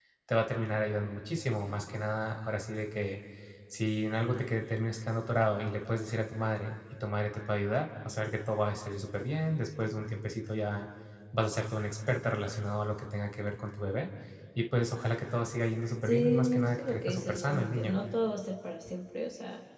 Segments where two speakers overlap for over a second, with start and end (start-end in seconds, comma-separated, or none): 16.1-18.0